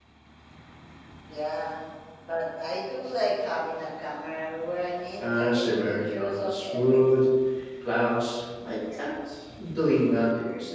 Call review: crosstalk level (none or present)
present